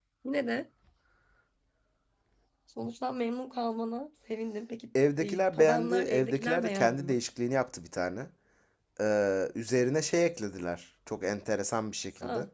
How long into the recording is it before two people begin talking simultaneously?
5.2 s

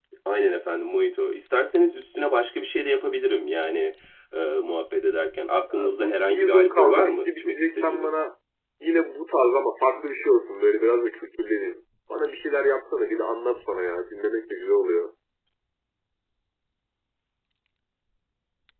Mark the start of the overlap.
5.7 s

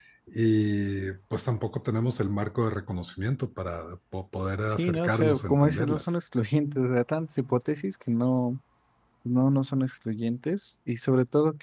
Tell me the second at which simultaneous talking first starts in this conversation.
4.8 s

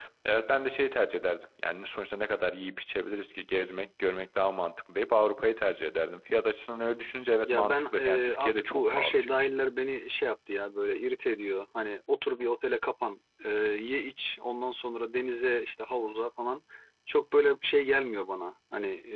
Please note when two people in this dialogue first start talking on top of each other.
7.5 s

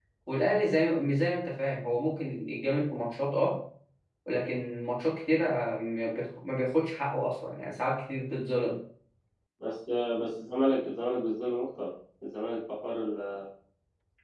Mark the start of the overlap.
none

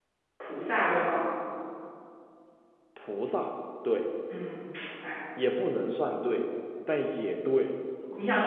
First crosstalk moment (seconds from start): none

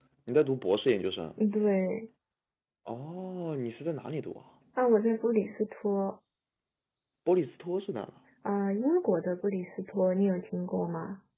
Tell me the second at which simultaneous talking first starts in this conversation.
none

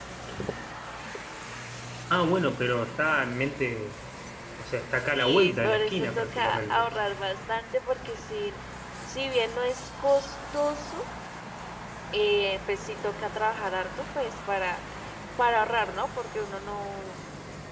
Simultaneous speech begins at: 5.1 s

